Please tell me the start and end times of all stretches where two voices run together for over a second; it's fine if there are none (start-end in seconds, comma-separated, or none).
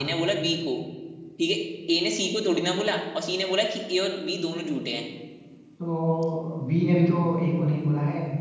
none